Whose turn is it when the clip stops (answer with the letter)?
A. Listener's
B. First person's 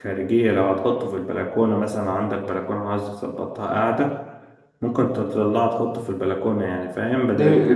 A